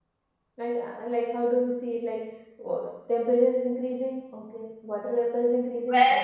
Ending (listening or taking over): taking over